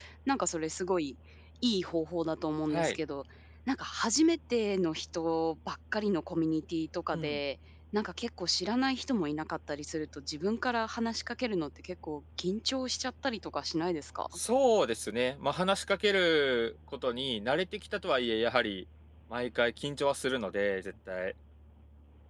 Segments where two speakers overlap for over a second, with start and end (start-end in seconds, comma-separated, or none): none